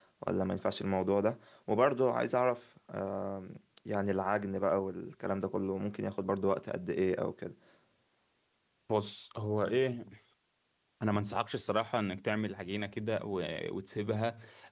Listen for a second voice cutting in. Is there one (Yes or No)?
No